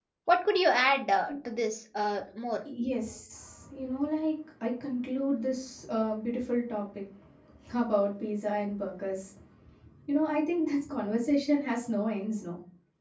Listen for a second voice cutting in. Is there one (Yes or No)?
No